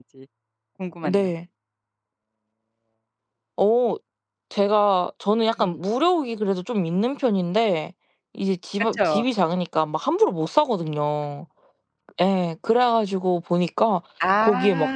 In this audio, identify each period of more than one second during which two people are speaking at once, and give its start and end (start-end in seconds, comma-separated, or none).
none